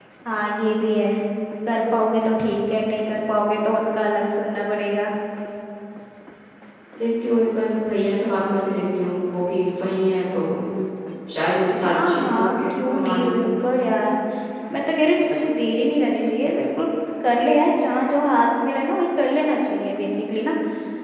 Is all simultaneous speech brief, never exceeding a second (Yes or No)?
No